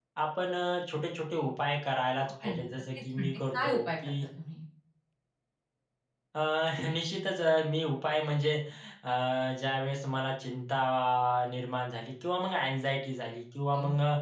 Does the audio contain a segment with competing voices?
Yes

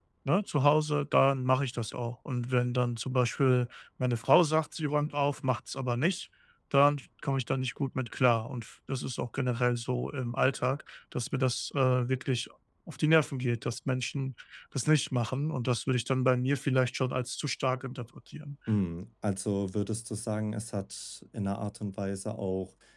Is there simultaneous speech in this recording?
No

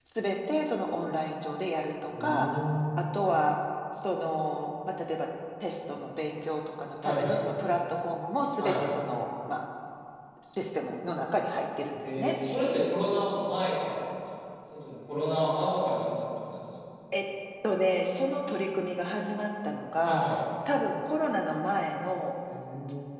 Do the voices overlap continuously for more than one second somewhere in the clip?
No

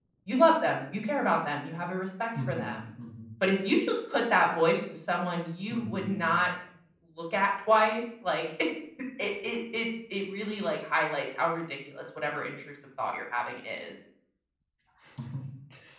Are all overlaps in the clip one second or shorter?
Yes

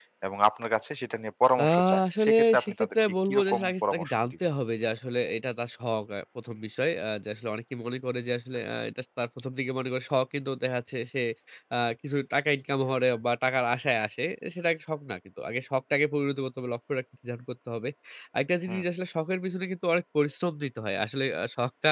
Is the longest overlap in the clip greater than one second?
Yes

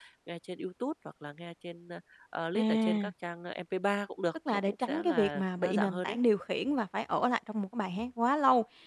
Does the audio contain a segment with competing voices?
Yes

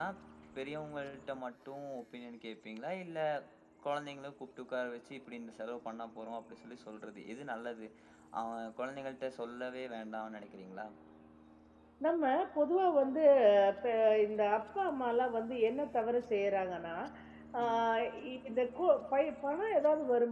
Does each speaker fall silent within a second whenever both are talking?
Yes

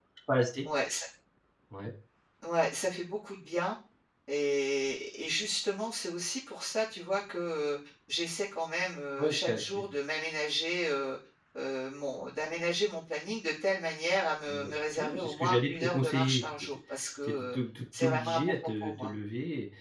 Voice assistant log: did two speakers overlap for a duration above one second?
Yes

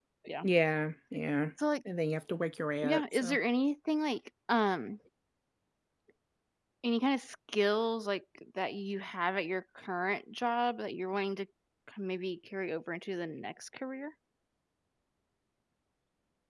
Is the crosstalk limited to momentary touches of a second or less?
Yes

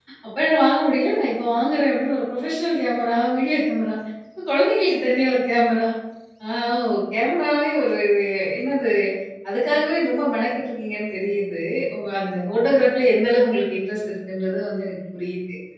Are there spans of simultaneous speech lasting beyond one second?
No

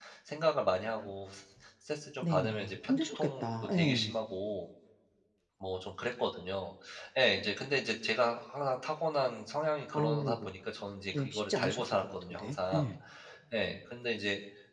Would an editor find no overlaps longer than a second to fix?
No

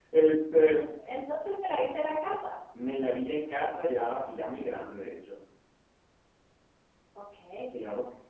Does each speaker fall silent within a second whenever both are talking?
Yes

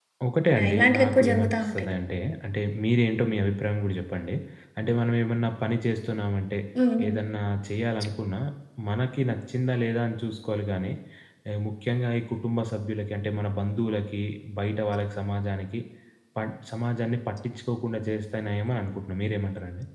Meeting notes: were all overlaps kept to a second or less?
No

